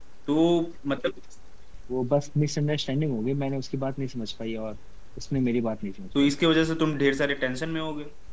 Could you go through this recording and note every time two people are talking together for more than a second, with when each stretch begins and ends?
none

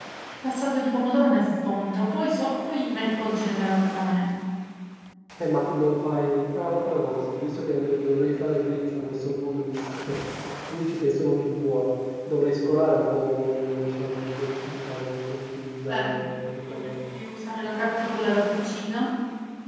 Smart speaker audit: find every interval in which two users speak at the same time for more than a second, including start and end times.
none

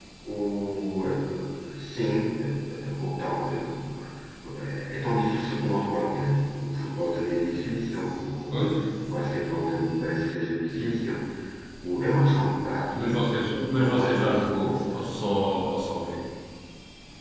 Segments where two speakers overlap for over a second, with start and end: 13.8-15.0

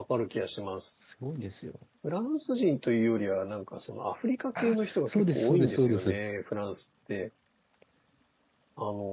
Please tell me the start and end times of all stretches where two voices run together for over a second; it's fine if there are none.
4.6-6.1

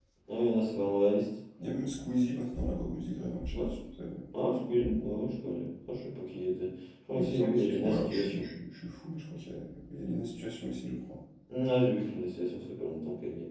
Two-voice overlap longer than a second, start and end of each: 7.2-8.5

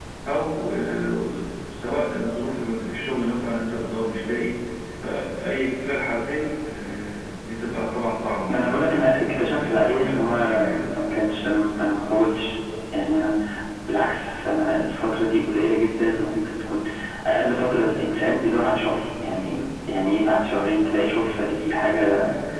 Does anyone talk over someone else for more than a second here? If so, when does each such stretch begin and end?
8.5-10.8

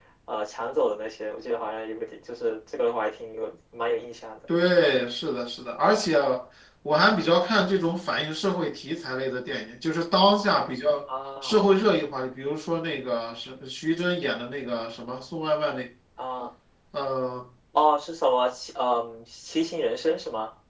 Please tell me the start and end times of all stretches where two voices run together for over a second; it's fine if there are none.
none

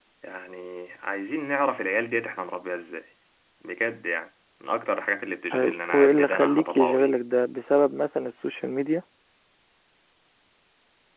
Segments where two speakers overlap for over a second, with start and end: 5.5-7.1

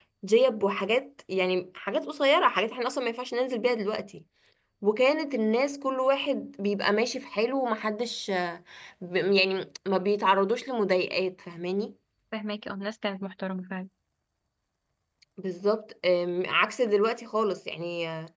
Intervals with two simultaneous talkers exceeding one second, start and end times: none

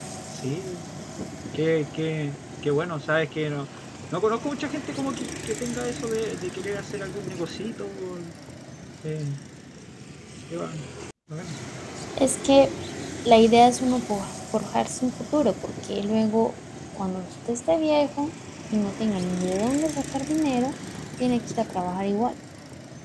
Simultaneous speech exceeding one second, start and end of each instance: none

